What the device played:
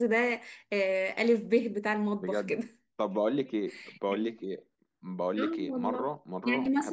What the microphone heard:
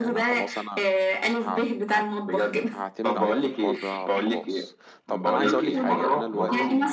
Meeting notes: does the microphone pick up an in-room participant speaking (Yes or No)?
Yes